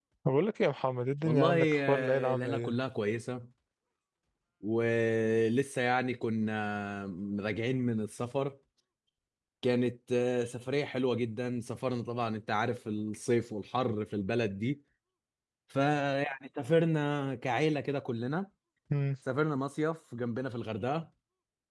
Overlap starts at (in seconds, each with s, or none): 1.2 s